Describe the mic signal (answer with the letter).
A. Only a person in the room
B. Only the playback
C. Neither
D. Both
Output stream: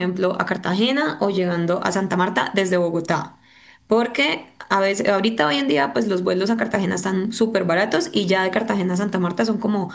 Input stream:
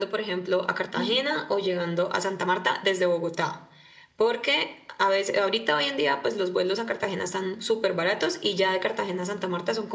D